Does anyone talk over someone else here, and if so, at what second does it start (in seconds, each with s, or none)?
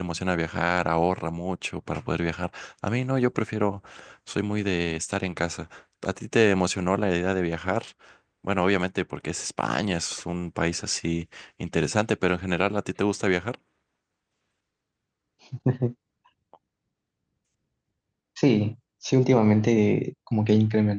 none